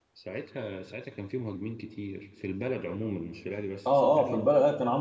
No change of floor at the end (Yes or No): No